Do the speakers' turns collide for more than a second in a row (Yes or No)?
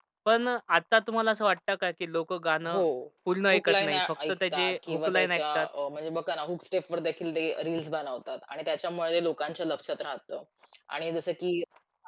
Yes